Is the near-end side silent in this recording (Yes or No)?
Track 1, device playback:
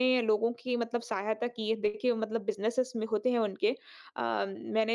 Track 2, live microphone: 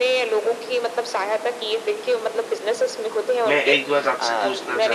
No